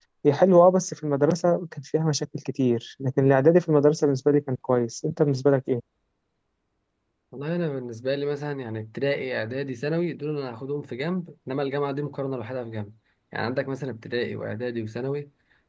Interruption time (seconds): none

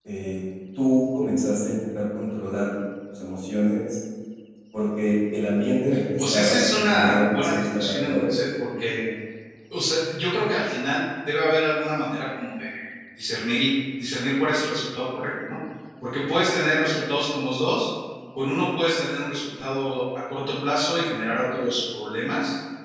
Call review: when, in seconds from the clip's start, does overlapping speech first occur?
5.9 s

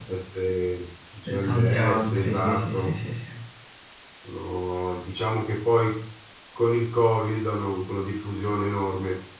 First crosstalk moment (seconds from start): 1.2 s

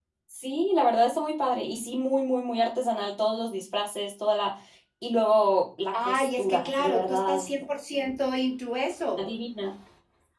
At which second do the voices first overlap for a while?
5.9 s

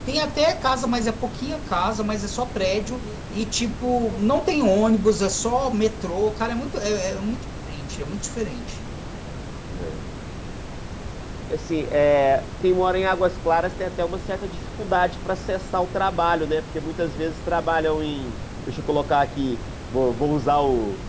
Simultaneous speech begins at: none

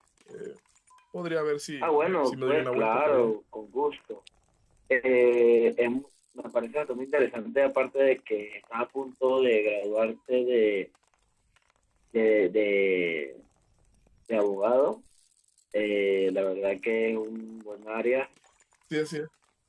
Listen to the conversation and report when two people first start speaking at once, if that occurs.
1.8 s

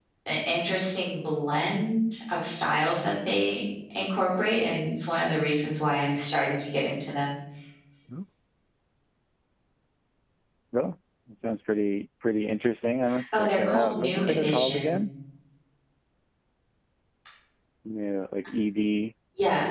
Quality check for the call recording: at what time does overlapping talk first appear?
13.3 s

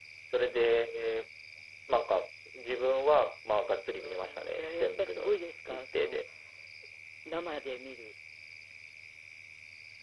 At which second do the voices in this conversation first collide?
4.0 s

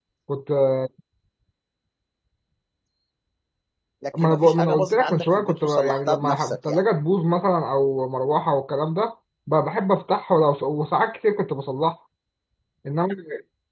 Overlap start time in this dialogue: 4.2 s

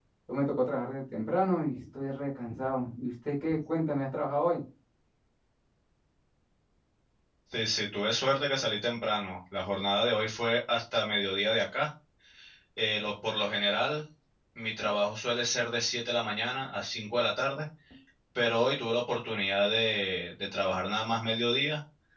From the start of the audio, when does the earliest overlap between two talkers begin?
none

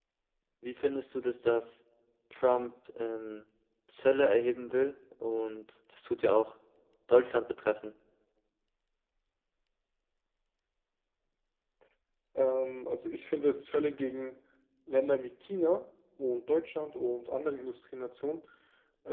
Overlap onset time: none

